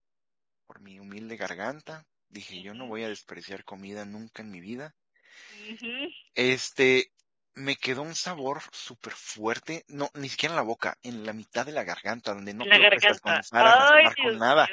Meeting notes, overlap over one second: present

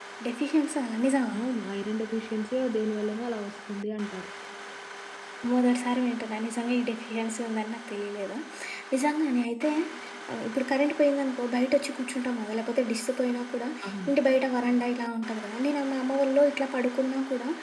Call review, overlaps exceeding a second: none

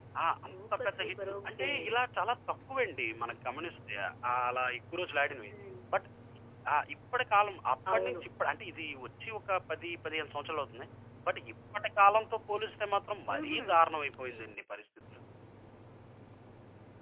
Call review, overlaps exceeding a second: present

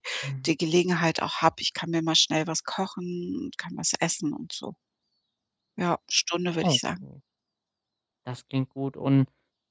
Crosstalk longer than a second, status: none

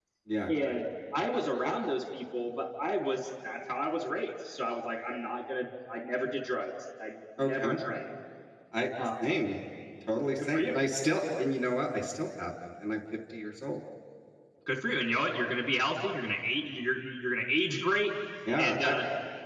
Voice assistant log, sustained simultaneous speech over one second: none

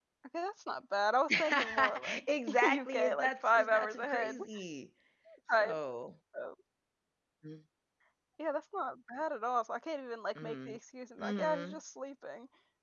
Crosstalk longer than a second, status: present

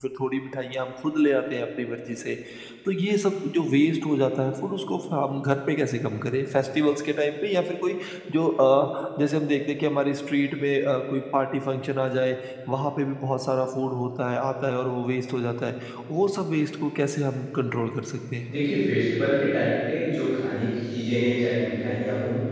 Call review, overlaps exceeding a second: none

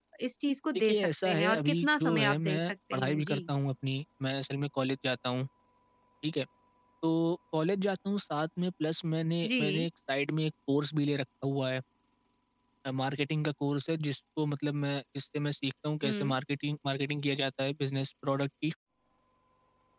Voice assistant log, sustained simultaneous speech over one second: present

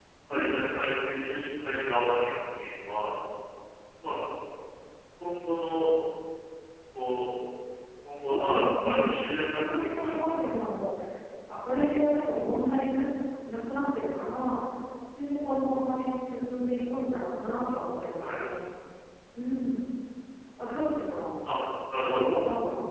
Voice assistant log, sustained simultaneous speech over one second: present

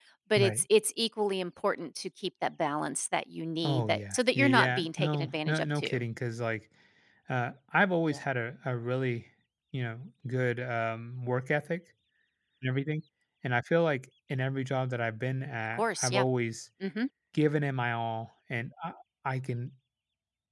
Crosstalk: present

